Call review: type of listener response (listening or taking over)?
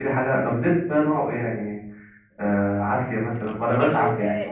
taking over